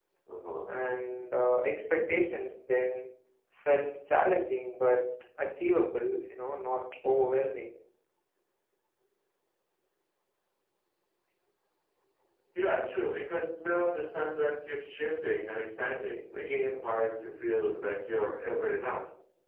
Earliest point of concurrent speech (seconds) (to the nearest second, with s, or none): none